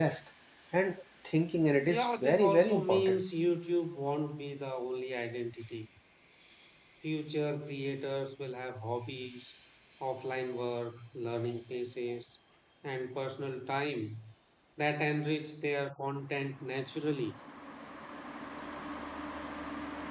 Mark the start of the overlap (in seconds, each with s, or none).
1.9 s